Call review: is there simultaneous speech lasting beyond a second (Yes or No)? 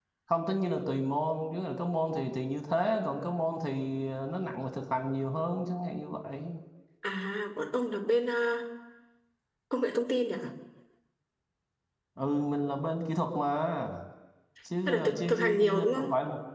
Yes